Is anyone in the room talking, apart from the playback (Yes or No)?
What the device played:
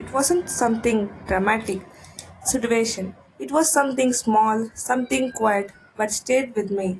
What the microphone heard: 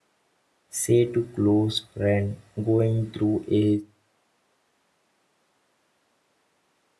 Yes